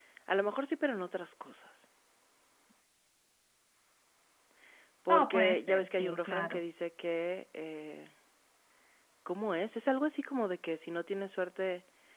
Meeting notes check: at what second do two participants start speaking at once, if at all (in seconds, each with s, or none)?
5.1 s